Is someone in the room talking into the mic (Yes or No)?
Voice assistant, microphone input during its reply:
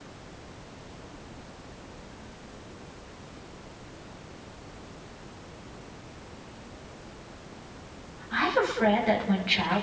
Yes